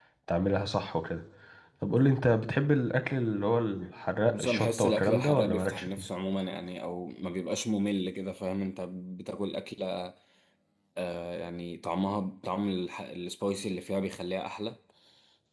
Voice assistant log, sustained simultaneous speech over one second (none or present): present